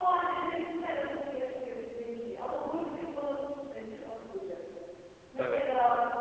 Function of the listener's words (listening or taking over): listening